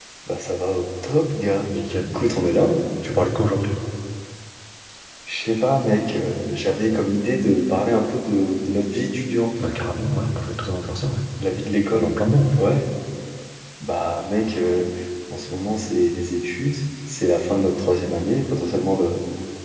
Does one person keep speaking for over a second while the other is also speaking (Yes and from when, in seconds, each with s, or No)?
No